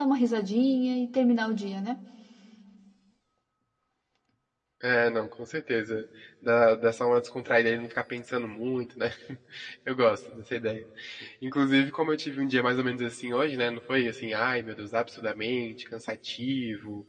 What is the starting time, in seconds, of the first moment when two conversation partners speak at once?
none

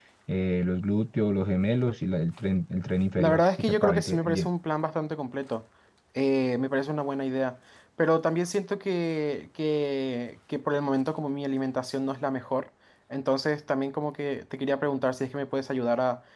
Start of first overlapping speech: 3 s

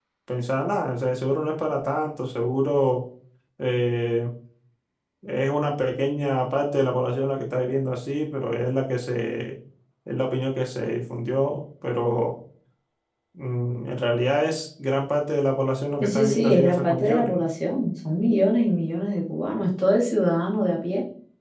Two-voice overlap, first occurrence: 16 s

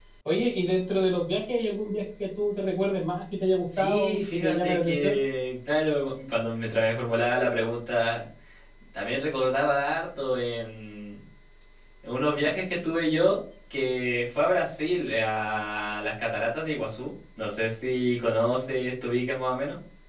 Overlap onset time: 4 s

